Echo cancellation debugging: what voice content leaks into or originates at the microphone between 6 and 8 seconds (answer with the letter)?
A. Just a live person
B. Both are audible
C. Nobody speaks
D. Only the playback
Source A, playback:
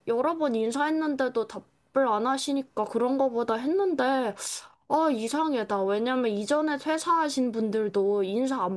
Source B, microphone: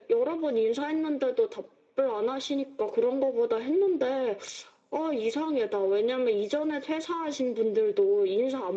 D